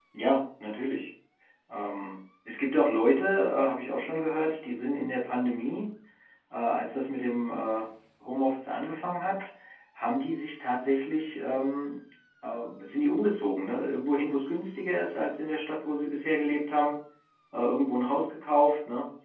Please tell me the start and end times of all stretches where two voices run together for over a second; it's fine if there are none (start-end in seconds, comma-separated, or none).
none